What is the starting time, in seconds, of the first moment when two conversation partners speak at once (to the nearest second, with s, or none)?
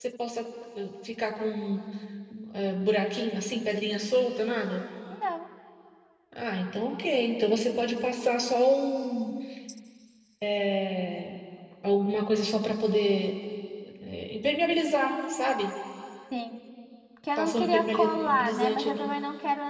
17 s